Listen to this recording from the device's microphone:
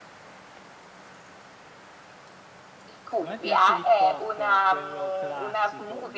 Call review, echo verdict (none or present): present